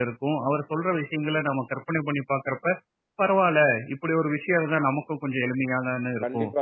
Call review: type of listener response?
taking over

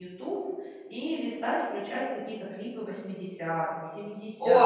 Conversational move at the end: taking over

